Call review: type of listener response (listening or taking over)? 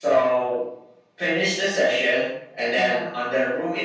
listening